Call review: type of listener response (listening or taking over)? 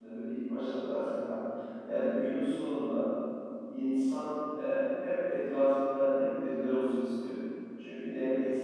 listening